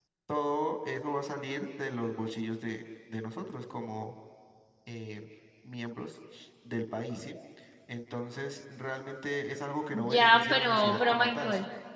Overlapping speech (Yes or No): Yes